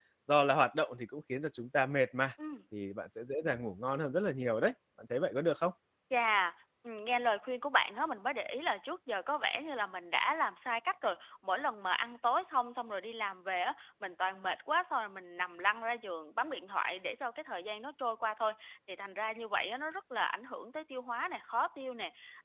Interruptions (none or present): none